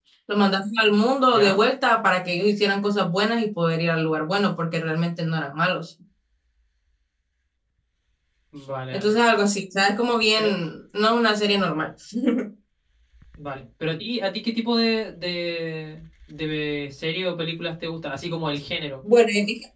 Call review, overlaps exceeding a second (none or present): none